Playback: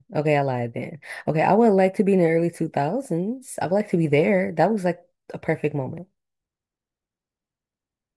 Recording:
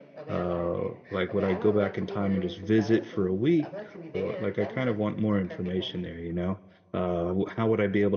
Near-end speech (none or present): present